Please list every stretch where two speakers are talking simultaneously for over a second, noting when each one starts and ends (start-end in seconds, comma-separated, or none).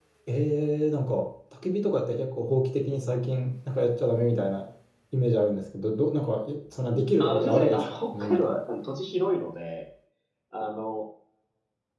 7.2-8.6